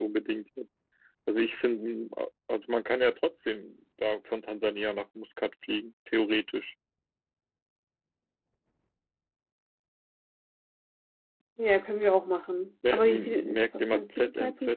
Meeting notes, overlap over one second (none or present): present